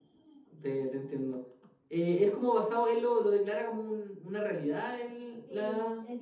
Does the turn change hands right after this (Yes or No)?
Yes